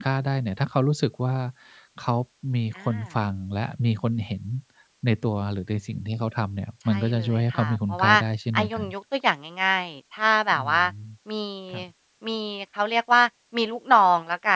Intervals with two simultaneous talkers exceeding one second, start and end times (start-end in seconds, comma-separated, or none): 6.9-8.1